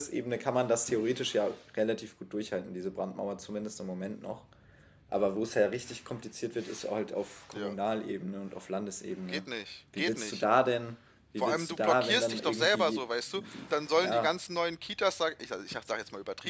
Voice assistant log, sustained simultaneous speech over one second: present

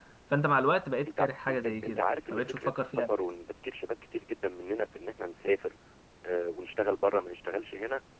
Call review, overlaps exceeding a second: present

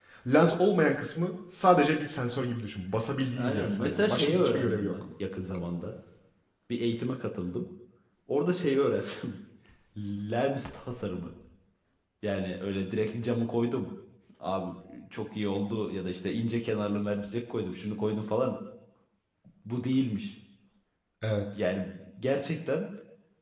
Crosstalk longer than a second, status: present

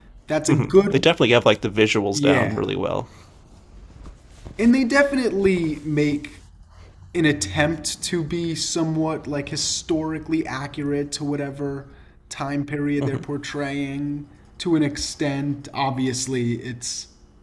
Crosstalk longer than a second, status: none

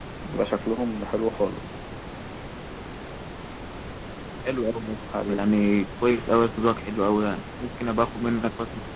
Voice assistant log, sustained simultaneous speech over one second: none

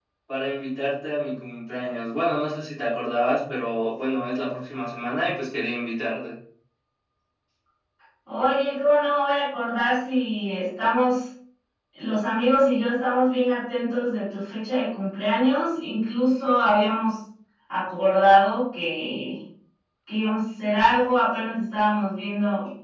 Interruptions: none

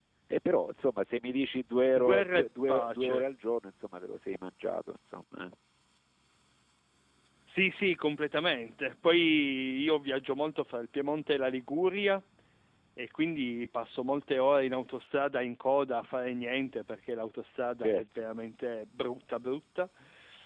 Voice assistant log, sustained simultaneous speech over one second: present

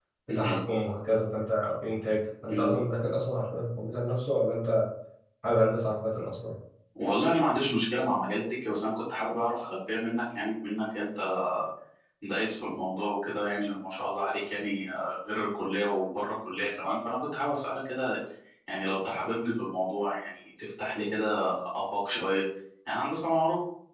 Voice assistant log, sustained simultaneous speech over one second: none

